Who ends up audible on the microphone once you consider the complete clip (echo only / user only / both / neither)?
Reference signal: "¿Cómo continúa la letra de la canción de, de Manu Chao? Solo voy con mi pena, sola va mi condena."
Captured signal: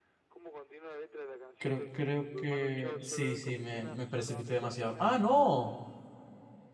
both